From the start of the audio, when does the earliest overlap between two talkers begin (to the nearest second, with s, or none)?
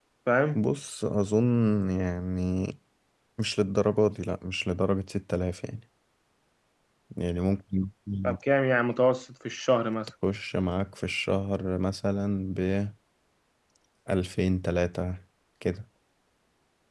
none